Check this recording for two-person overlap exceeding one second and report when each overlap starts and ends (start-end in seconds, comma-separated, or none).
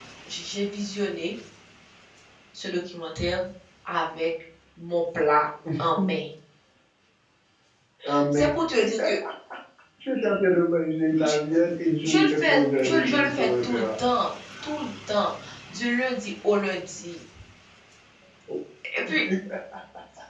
12.0-13.9